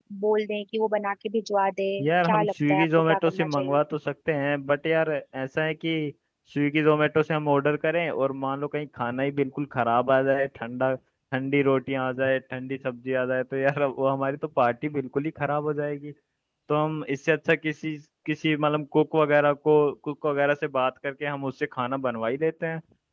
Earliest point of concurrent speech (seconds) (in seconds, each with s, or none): 2.0 s